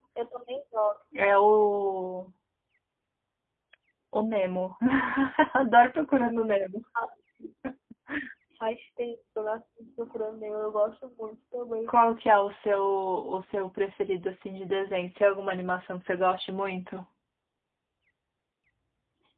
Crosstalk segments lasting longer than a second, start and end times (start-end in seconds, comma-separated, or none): none